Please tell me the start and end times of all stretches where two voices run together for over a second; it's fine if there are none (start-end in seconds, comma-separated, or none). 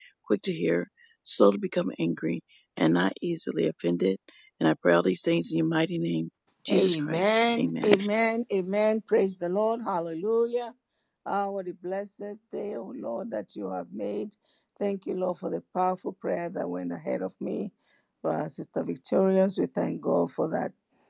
6.7-7.9